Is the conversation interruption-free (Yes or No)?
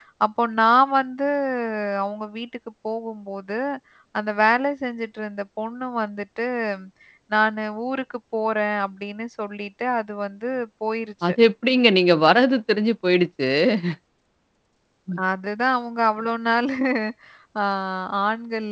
Yes